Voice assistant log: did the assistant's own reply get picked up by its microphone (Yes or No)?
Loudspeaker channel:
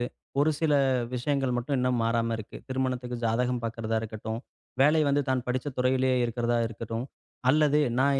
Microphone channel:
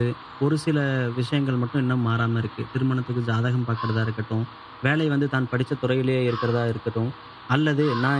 Yes